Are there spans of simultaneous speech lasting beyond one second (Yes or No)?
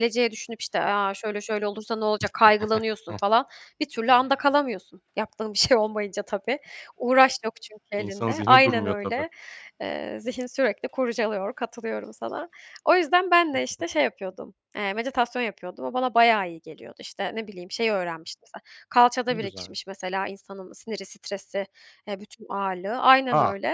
Yes